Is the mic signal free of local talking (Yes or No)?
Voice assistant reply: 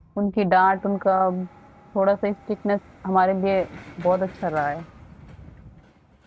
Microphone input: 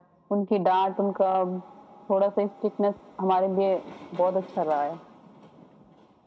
Yes